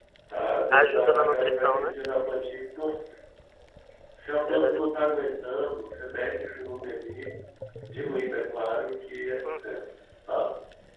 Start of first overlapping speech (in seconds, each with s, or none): 0.7 s